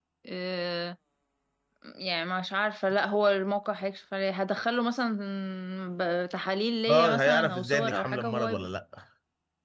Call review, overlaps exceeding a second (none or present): present